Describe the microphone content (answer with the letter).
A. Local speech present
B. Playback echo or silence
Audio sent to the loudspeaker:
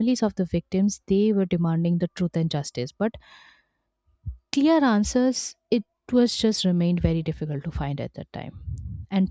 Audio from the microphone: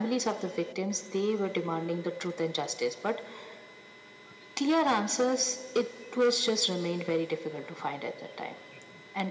B